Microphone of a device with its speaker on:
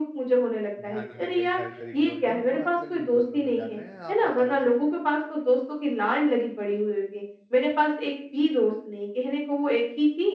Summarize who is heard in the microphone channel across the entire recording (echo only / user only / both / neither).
both